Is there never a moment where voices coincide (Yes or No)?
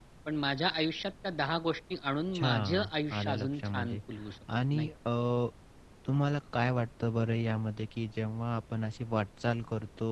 No